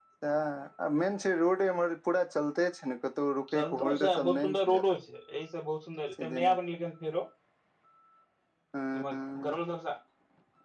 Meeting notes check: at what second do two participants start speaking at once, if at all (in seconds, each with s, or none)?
3.5 s